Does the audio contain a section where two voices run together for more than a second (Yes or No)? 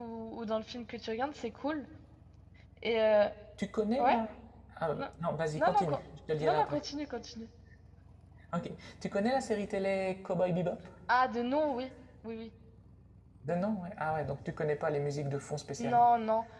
No